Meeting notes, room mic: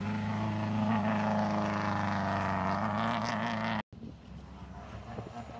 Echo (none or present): none